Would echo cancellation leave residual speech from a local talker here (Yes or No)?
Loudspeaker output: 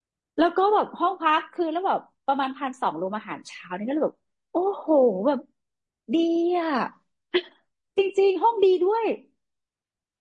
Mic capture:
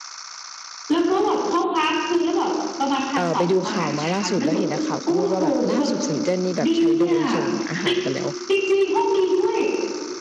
Yes